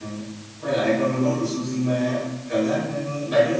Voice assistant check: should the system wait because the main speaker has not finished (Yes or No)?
Yes